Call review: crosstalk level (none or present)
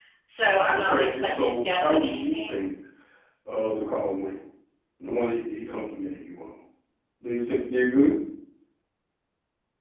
present